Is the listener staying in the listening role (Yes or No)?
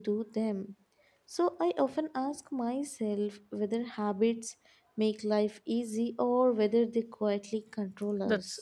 No